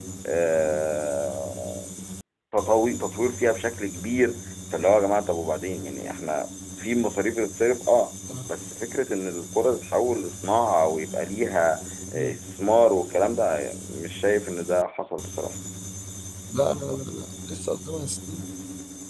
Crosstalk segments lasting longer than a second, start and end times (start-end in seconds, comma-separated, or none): none